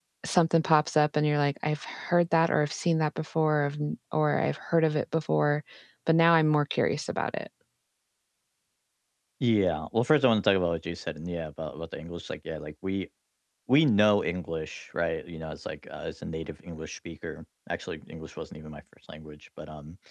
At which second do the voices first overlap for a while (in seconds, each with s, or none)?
none